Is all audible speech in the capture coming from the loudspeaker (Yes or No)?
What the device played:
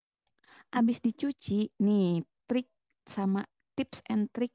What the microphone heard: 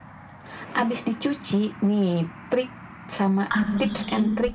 No